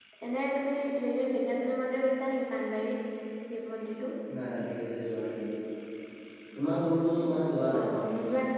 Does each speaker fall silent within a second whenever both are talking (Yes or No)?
Yes